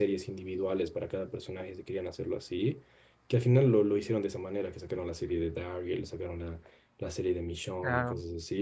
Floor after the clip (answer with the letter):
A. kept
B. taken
A